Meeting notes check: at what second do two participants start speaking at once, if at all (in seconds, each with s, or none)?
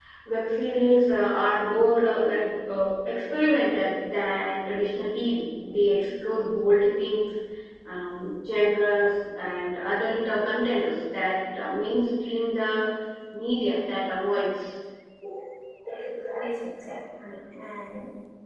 none